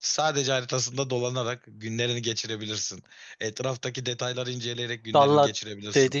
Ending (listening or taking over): taking over